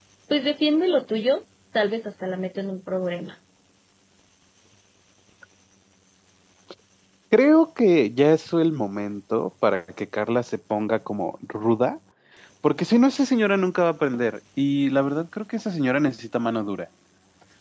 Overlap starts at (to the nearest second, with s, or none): none